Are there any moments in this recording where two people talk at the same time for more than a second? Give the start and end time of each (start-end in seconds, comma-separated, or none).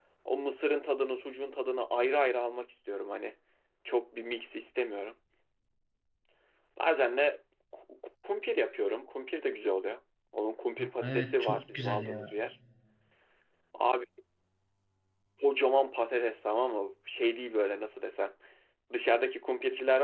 10.8-12.3